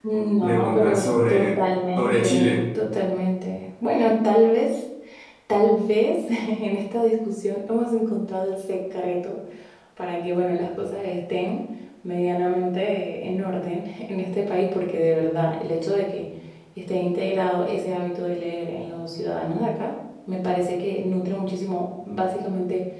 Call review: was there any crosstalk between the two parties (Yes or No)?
Yes